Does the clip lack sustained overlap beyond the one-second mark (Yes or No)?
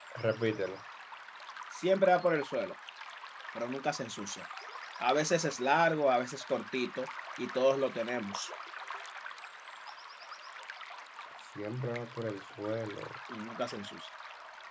Yes